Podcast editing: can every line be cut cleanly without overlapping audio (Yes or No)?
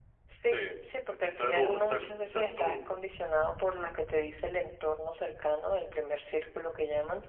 No